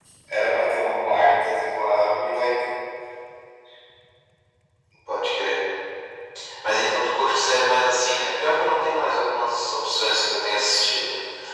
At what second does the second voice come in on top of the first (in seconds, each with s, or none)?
none